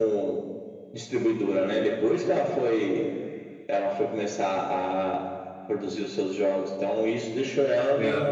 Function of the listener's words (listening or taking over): listening